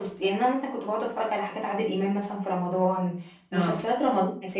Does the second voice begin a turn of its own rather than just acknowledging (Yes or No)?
No